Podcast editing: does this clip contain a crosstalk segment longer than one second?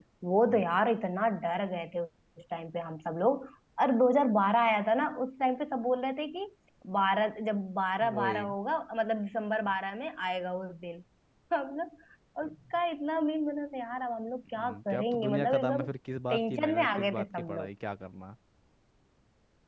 Yes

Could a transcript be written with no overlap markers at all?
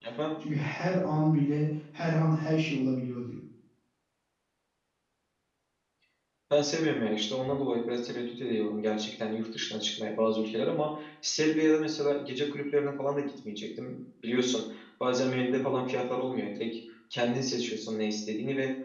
Yes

